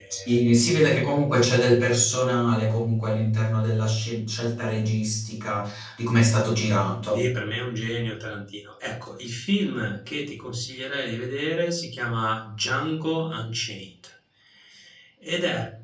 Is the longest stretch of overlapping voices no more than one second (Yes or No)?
Yes